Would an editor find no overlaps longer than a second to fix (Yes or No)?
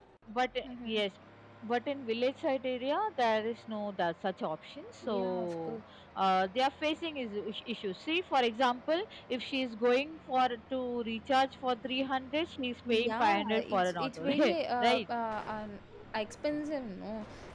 No